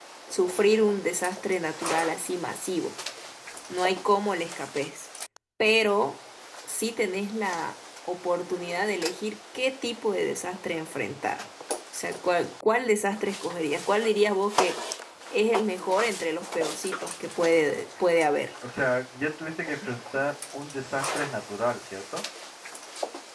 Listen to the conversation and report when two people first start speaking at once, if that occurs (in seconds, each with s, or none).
none